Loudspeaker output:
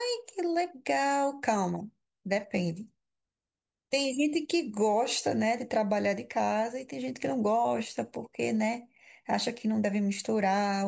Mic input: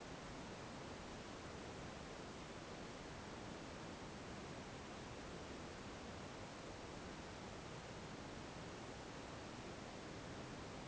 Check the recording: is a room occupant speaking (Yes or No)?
No